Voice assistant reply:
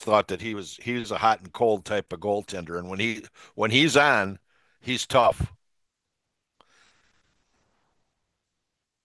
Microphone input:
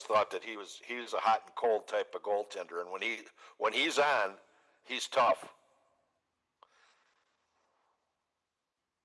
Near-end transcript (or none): none